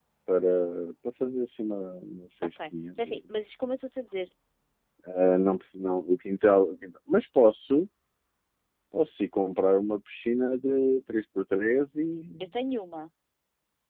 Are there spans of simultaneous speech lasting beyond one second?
No

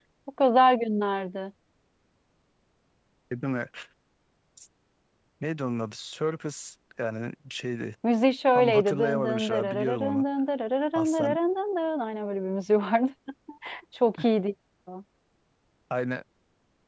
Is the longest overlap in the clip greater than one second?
Yes, from 8.6 s

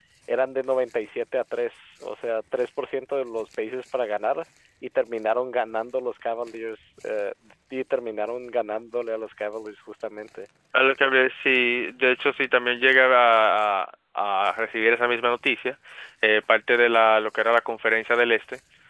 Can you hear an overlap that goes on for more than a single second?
No

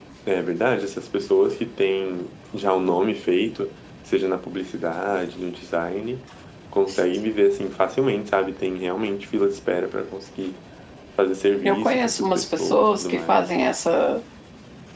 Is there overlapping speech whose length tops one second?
Yes, from 11.6 s

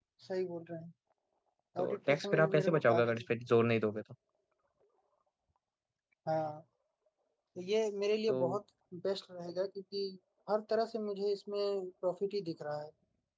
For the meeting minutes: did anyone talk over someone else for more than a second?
Yes, from 1.8 s

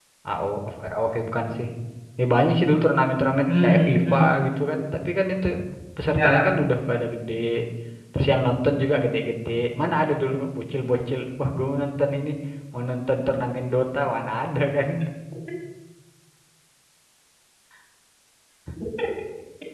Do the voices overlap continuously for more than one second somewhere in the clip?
Yes, from 3.5 s

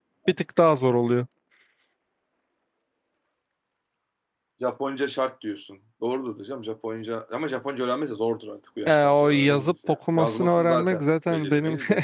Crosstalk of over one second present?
Yes, from 8.9 s

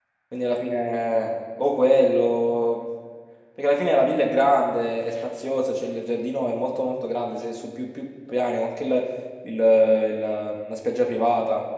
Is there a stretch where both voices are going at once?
No

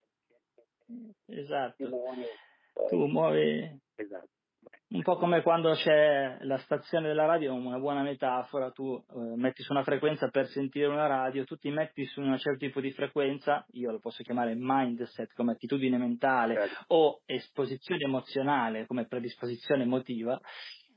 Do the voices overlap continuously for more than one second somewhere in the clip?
No

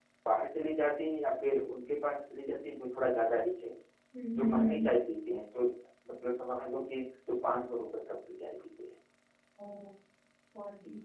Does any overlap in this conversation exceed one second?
No

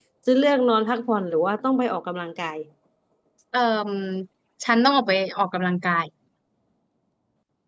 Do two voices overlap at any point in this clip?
No

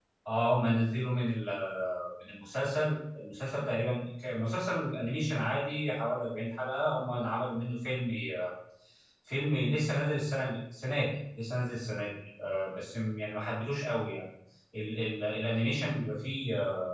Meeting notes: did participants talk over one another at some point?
No

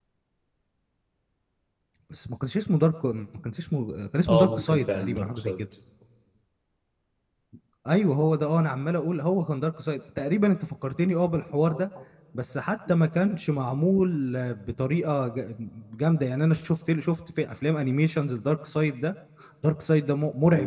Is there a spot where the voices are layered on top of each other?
Yes, from 4.3 s

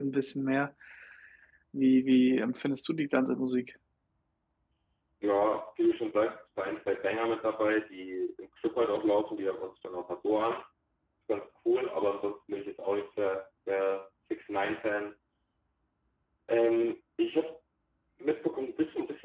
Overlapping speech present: No

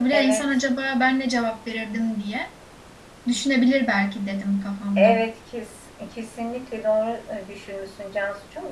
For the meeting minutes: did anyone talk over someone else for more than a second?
No

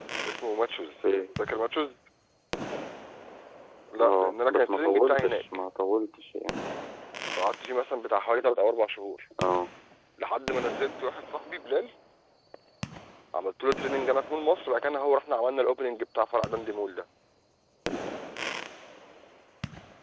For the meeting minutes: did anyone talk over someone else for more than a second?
Yes, from 4.0 s

